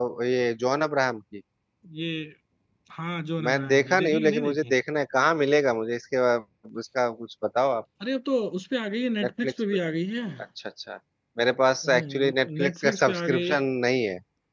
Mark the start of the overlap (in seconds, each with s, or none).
3.4 s